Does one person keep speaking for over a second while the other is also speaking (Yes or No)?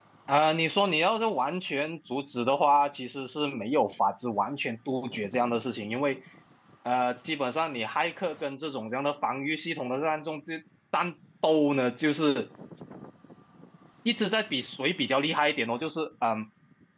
No